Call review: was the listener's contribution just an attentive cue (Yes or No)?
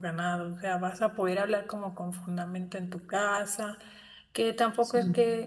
Yes